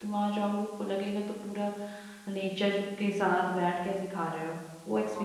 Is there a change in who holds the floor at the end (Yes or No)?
Yes